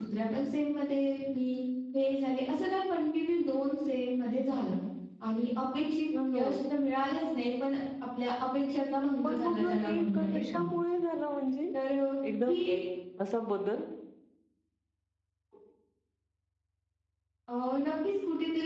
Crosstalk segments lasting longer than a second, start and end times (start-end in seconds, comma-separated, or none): 9.2-10.6